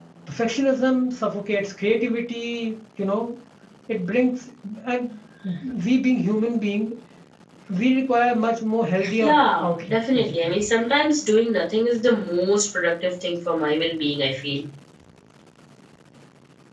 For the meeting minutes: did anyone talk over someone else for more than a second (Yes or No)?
Yes